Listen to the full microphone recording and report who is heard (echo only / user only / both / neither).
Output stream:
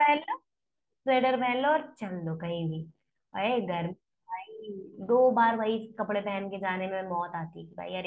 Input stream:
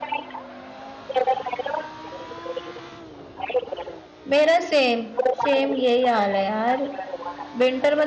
both